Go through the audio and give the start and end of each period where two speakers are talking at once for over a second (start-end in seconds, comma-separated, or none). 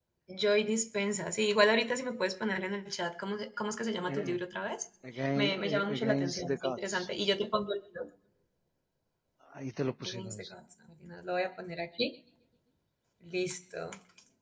5.4-7.1